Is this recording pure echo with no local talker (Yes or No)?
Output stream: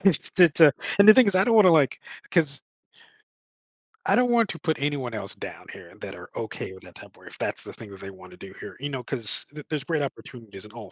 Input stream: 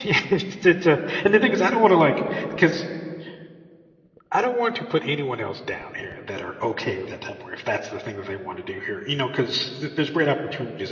Yes